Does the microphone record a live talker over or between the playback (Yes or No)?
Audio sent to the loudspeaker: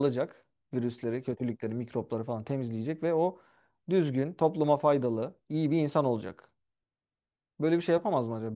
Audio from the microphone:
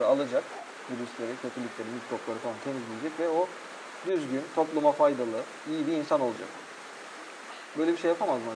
No